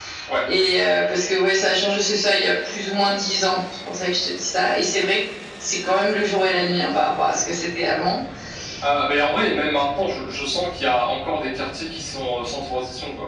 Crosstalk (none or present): none